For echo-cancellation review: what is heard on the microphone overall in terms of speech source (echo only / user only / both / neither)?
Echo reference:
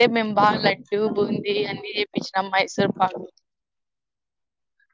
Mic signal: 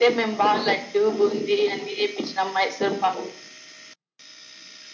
echo only